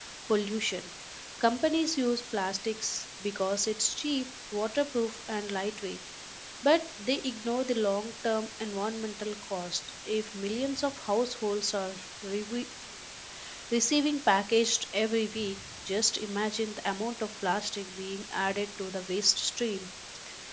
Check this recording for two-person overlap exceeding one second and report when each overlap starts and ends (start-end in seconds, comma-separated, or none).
none